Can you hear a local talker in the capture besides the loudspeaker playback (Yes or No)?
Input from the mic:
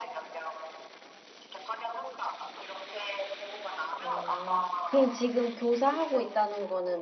Yes